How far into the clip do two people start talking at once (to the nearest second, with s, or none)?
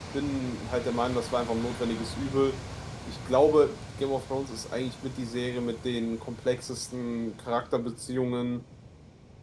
none